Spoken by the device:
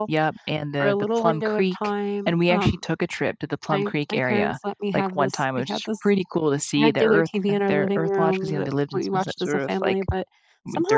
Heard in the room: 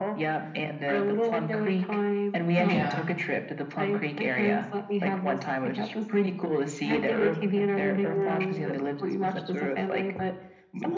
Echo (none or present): present